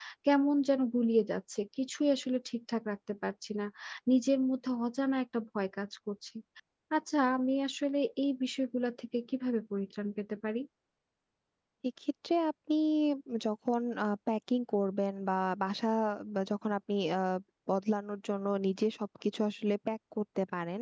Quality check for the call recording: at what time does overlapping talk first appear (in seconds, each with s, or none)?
none